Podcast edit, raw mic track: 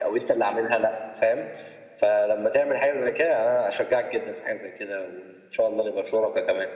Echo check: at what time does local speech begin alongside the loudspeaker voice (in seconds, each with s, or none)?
none